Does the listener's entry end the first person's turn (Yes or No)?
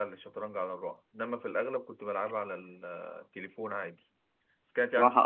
Yes